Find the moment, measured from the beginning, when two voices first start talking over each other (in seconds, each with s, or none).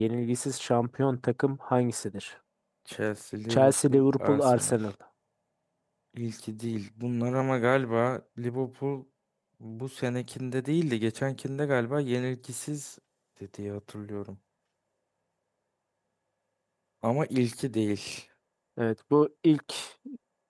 3.5 s